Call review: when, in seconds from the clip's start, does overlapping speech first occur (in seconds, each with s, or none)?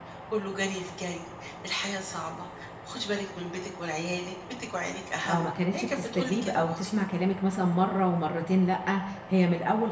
5.3 s